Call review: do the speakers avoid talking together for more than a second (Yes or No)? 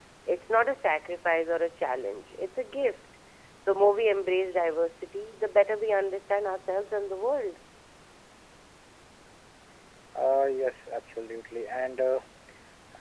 Yes